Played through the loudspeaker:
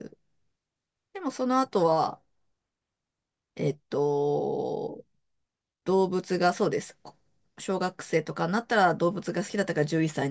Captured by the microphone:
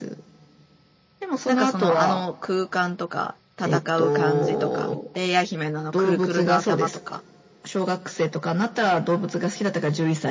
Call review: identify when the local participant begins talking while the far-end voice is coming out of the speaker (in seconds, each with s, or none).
1.4 s